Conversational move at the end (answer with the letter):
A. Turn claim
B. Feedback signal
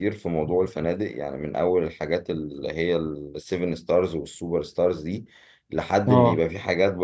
B